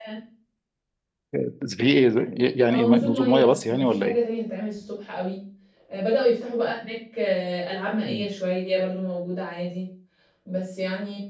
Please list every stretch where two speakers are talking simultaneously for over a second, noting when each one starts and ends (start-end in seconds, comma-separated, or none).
2.7-4.2